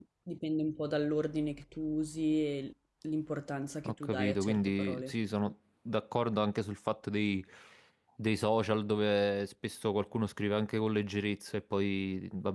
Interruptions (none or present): present